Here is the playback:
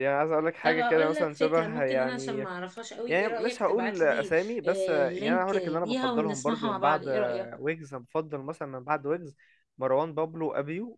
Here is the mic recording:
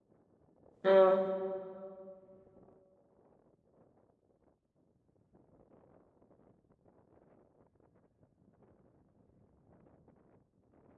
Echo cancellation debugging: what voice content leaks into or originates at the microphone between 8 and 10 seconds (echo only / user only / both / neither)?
neither